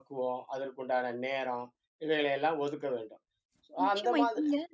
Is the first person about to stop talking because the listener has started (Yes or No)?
Yes